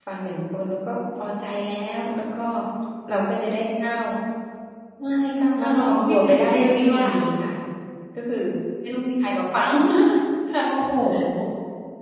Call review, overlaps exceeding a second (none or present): present